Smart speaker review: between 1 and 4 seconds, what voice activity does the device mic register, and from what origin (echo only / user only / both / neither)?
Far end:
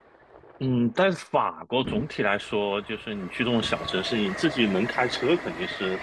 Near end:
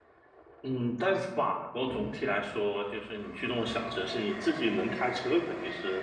echo only